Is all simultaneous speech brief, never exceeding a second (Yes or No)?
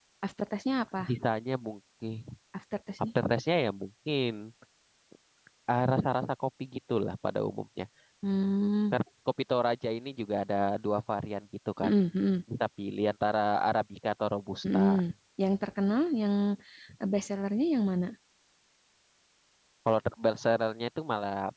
Yes